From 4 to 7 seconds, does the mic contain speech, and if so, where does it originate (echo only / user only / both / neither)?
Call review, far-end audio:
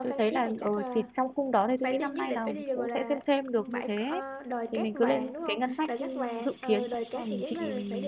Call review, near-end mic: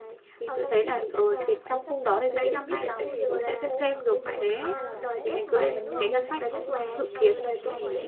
both